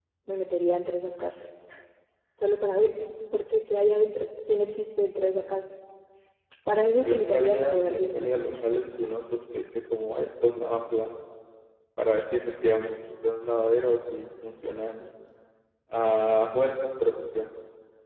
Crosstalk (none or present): present